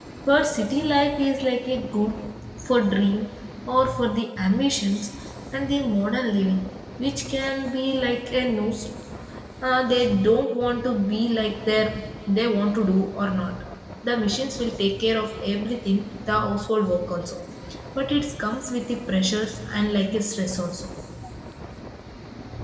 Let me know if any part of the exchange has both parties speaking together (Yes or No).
No